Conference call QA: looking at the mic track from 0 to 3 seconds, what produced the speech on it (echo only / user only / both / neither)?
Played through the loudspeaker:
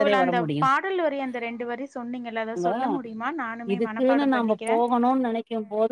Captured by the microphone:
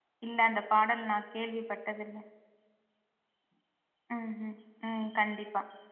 user only